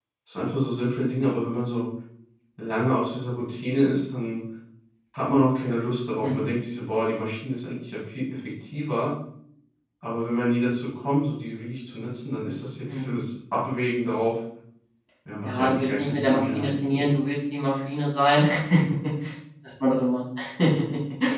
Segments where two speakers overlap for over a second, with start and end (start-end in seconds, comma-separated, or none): 15.4-17.1